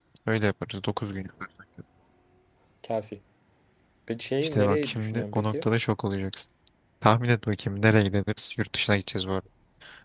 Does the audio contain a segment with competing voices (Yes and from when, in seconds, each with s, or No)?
Yes, from 4.4 s